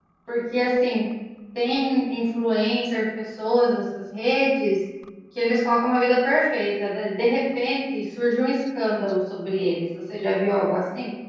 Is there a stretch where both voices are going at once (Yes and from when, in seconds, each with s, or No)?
No